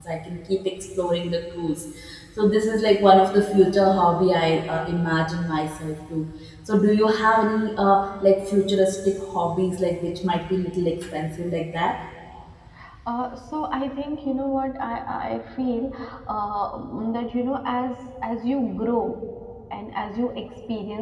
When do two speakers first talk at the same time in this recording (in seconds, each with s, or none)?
none